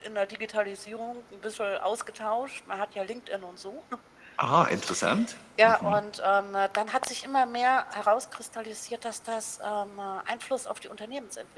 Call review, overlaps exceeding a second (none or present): none